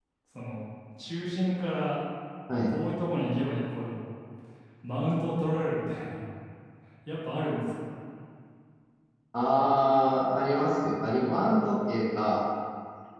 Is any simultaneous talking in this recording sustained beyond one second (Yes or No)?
No